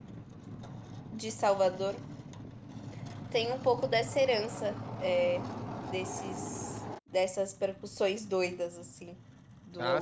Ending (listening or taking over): taking over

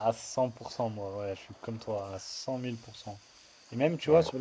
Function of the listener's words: listening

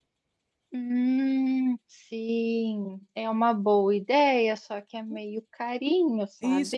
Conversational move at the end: taking over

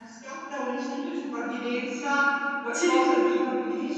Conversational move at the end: listening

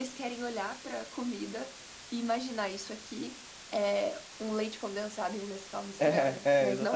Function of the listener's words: taking over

